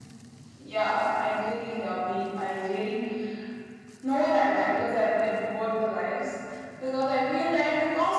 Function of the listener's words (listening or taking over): listening